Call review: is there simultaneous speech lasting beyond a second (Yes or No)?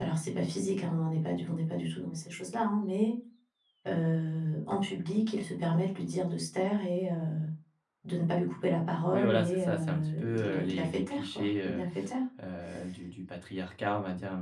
Yes